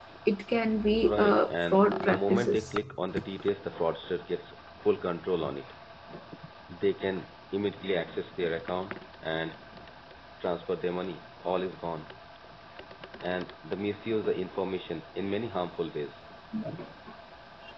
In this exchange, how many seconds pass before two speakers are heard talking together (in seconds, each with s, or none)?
1.0 s